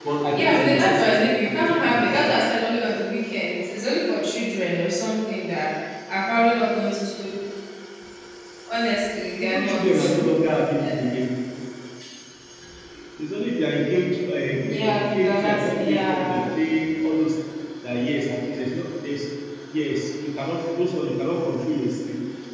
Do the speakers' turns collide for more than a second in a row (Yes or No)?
Yes